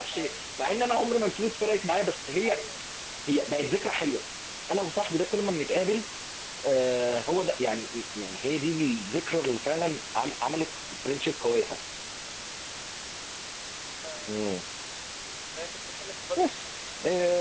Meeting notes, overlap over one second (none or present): none